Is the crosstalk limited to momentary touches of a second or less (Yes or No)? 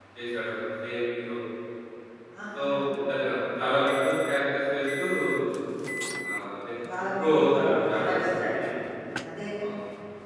No